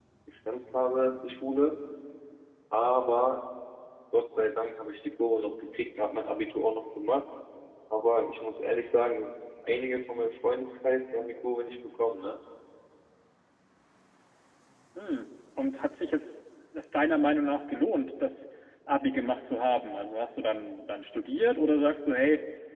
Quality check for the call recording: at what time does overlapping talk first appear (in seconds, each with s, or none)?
none